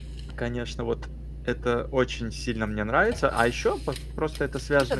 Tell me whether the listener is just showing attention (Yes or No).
No